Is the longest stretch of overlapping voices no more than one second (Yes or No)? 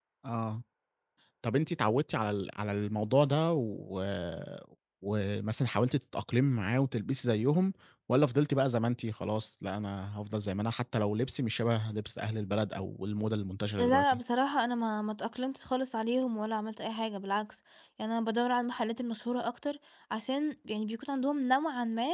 Yes